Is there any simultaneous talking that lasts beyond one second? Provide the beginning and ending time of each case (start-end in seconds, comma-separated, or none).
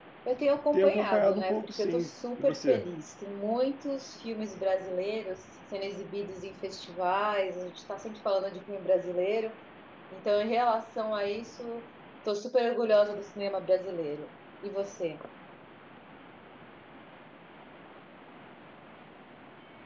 0.7-2.9